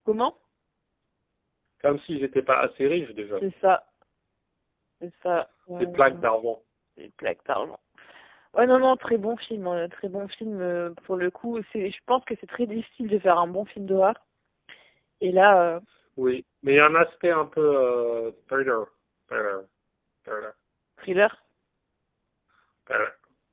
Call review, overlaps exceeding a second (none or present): none